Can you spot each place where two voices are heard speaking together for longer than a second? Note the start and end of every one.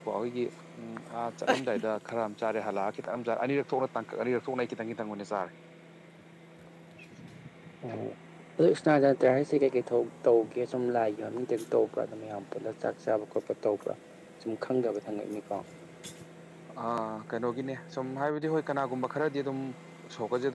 none

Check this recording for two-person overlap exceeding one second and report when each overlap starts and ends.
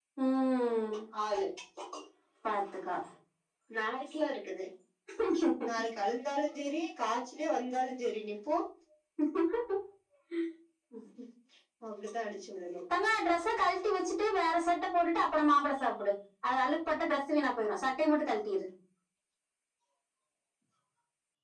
none

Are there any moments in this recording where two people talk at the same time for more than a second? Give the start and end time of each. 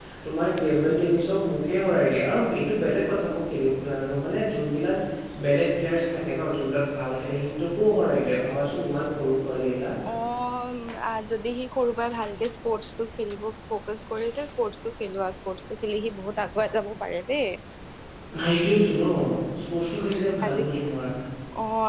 none

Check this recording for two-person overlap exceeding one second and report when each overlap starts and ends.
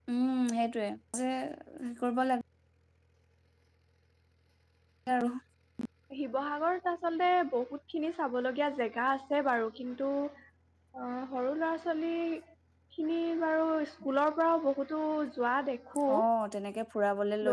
none

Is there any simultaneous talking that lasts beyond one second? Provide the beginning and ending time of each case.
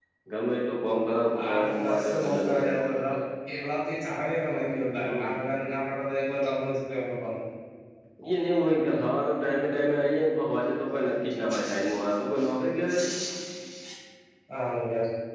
1.4-2.7

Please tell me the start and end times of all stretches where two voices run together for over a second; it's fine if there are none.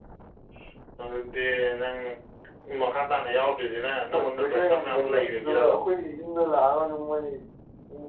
4.1-5.6

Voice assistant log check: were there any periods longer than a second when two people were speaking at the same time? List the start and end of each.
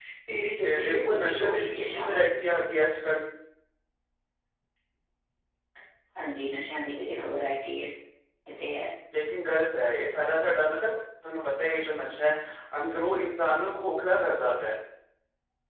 0.6-2.1

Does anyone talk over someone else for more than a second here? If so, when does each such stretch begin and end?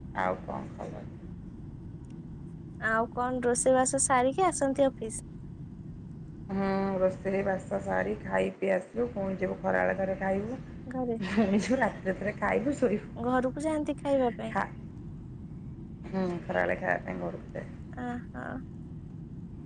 none

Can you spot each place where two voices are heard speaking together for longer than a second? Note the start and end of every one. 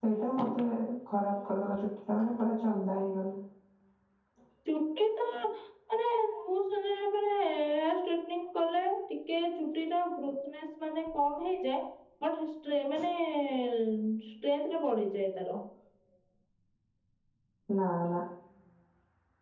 none

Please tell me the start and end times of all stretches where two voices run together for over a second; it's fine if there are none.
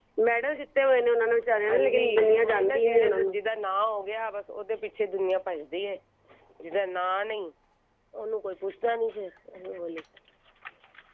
1.7-3.4

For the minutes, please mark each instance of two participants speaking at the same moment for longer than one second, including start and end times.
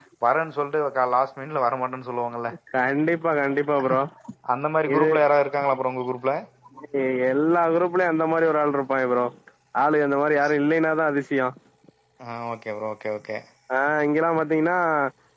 none

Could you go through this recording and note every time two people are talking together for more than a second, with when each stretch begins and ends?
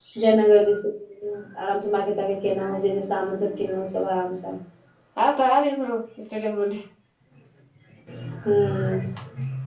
none

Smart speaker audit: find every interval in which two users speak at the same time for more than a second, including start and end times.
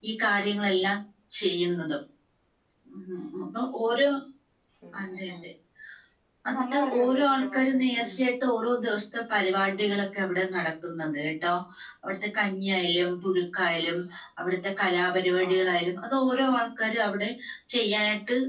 6.5-8.1

